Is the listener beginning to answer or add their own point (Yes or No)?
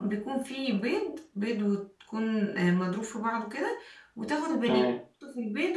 No